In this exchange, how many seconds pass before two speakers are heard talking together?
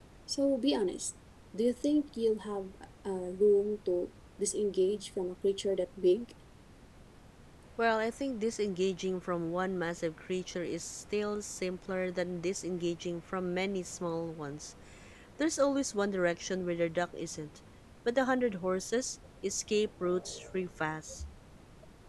none

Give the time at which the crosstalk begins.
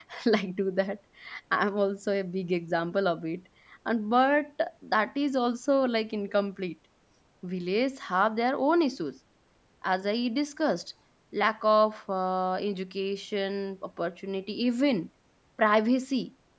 none

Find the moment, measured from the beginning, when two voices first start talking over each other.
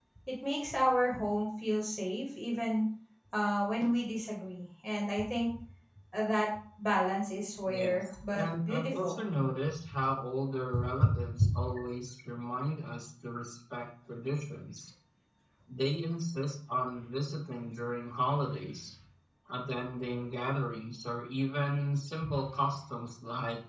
7.7 s

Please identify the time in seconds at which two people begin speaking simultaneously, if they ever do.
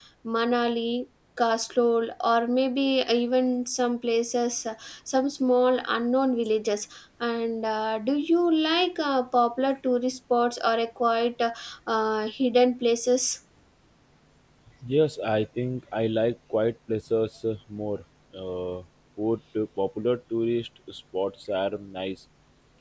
none

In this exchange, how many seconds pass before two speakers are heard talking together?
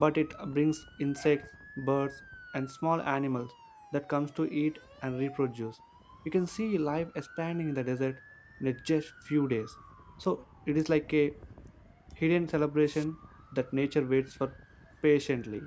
none

